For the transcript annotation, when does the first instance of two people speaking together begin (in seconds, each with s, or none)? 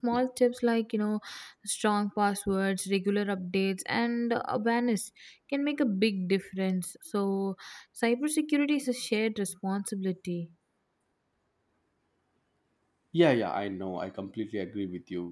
none